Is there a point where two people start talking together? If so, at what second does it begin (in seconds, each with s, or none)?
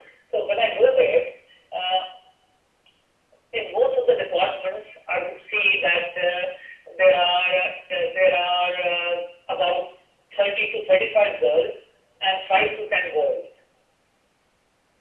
none